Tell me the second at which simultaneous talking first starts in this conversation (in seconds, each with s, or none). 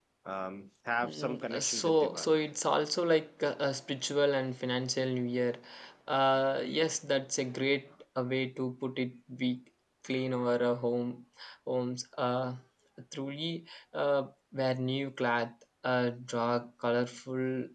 1.0 s